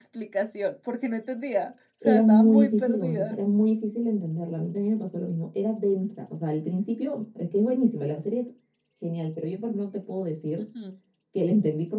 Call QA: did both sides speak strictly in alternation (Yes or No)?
No